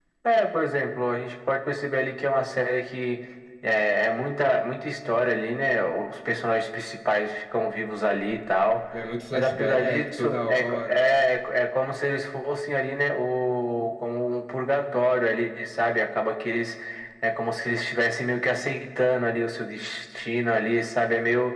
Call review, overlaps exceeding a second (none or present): present